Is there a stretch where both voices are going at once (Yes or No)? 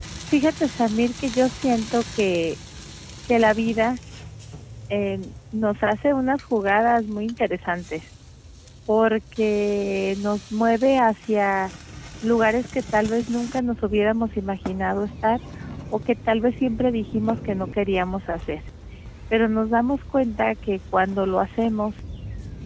No